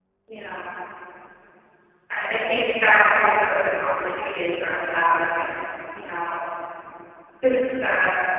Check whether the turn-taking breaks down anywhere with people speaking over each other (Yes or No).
No